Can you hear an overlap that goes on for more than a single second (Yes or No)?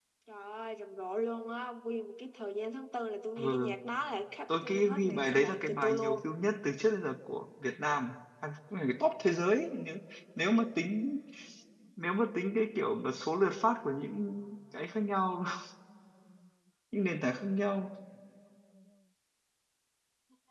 Yes